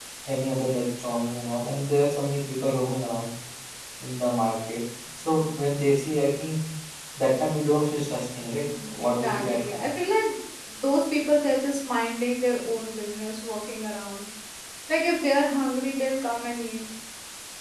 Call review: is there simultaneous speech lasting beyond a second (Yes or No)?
Yes